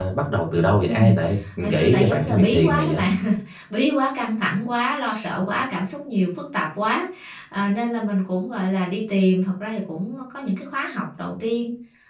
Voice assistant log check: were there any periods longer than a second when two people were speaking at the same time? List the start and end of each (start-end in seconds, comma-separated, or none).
1.7-3.0